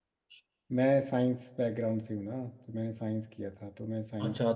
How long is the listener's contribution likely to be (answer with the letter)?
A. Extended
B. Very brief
A